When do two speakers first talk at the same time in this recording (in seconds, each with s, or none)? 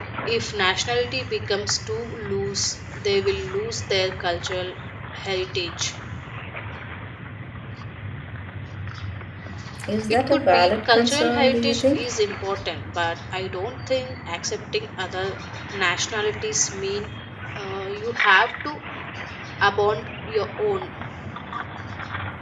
10.1 s